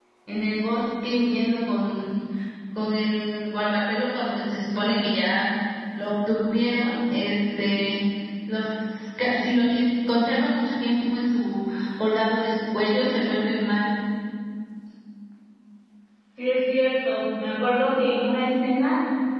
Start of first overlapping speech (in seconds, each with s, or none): none